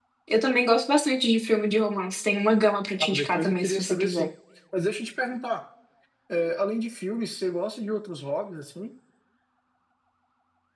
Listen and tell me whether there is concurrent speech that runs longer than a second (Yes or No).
Yes